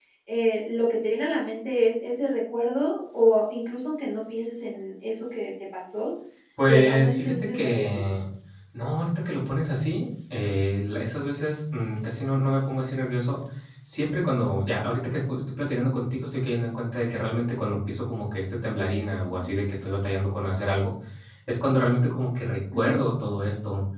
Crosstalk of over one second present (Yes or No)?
Yes